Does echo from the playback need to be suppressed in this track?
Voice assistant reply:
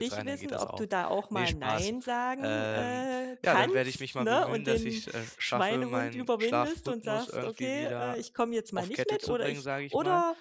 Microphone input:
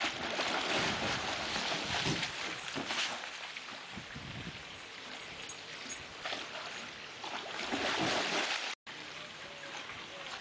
No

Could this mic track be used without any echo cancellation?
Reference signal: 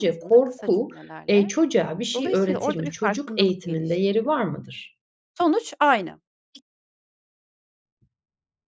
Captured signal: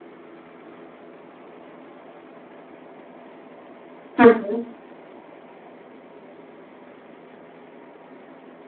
Yes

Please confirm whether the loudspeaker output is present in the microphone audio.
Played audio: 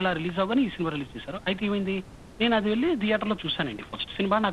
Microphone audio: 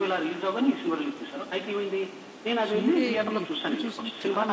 Yes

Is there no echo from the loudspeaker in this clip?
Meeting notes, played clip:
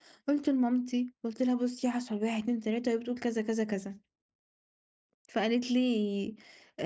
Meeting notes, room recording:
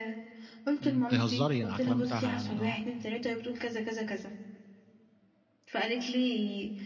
No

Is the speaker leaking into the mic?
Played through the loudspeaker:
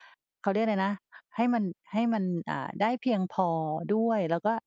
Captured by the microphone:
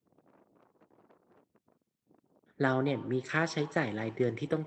No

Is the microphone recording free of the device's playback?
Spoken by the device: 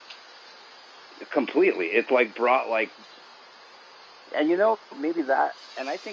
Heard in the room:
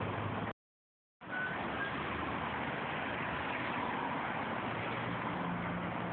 Yes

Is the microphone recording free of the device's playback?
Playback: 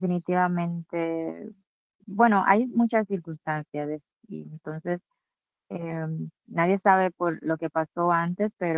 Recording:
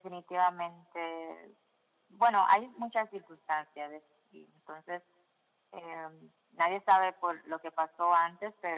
No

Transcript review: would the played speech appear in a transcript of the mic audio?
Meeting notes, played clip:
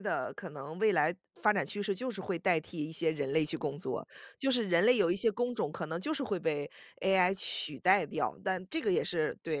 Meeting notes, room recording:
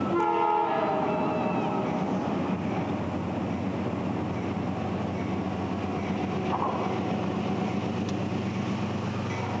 No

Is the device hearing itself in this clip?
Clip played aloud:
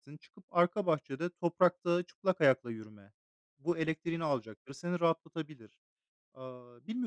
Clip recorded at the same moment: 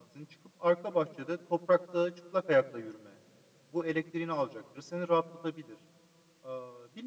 Yes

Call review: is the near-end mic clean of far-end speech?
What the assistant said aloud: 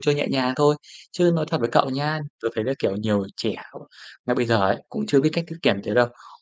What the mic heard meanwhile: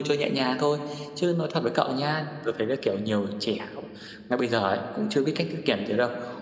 No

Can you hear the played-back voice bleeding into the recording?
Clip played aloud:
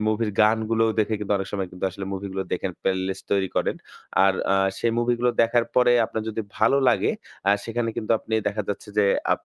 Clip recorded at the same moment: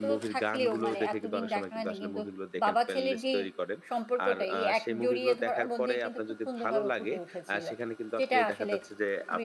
Yes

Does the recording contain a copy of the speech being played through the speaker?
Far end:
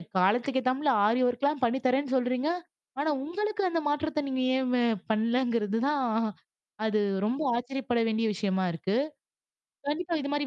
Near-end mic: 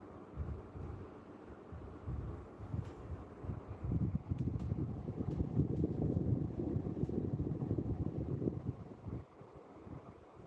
No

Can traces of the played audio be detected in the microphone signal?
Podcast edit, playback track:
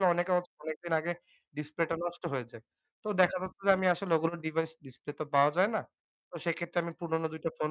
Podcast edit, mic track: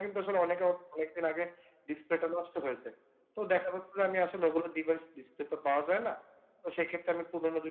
Yes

